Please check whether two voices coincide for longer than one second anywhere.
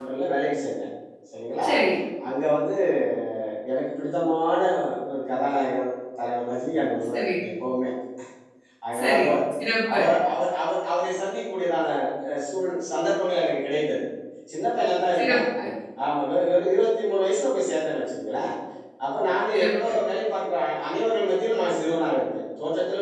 No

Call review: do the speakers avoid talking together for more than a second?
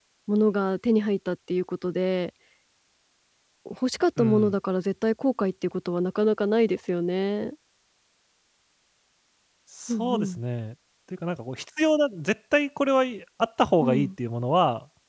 Yes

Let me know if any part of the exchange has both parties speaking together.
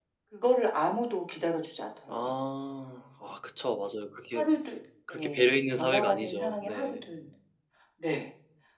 Yes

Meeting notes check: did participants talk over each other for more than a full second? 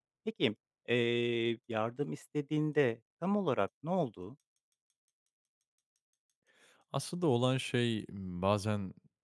No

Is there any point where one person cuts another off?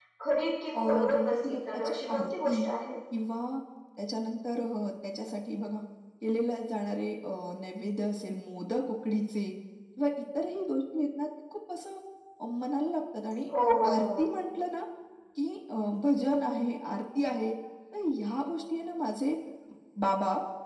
Yes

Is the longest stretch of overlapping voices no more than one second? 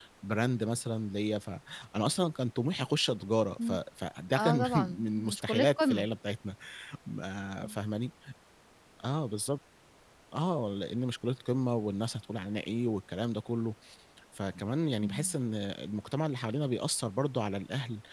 No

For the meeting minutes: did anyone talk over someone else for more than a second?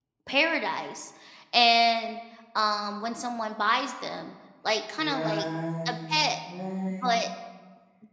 No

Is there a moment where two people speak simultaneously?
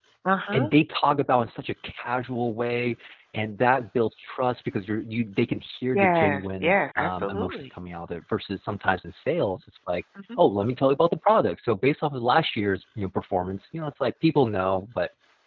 Yes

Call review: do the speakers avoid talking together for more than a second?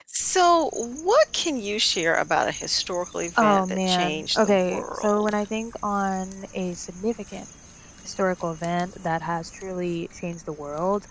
No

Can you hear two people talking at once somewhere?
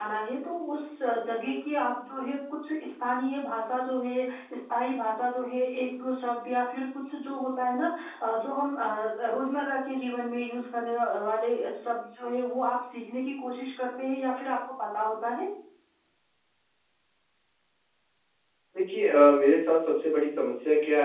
No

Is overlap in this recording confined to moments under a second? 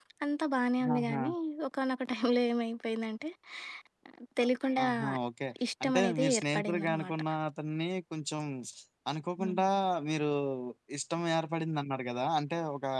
No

